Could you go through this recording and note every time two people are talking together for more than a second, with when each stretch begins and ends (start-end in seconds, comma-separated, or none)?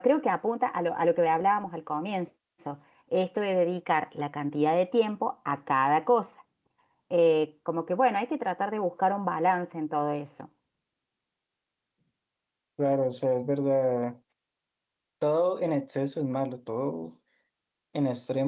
none